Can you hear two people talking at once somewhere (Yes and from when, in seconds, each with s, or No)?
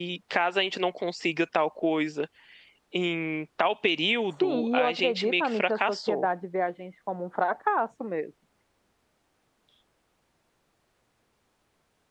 Yes, from 4.4 s